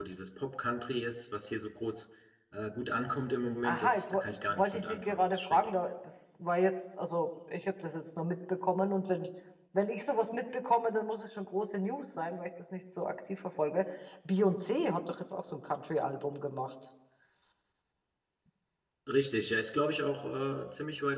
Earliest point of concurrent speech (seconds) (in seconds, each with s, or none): 3.6 s